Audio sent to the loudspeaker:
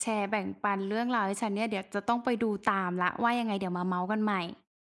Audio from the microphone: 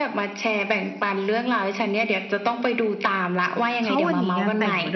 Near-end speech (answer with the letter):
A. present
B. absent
A